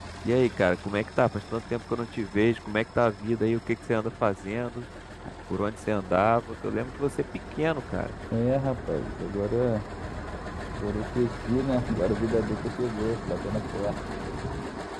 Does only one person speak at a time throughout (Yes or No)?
Yes